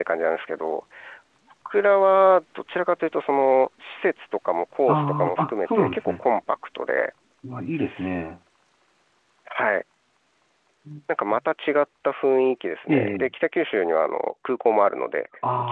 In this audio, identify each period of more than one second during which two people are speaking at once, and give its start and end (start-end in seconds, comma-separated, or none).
4.9-6.2